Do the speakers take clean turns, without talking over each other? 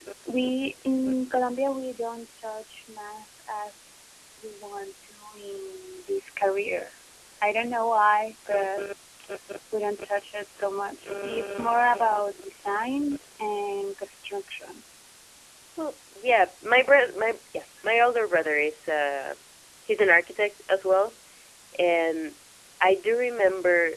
Yes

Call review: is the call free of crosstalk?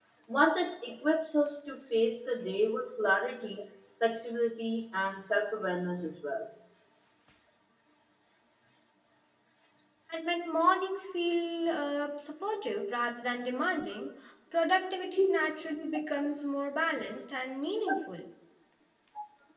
Yes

